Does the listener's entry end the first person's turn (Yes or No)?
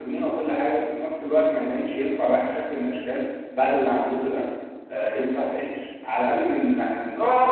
Yes